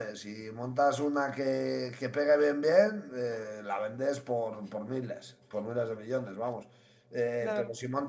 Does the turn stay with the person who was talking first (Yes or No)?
Yes